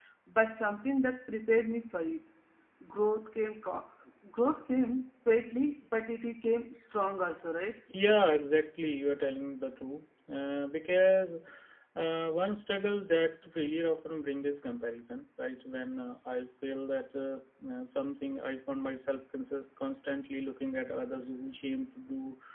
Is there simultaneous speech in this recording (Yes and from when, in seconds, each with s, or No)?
No